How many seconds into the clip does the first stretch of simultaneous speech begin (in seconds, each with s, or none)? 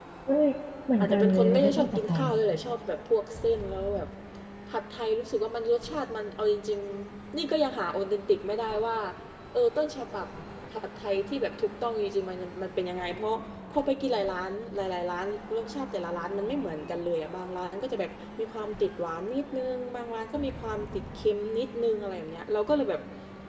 1.0 s